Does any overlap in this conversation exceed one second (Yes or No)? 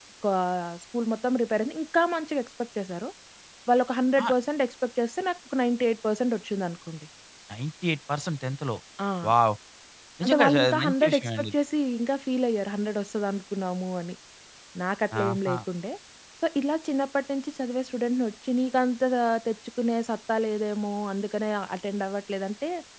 Yes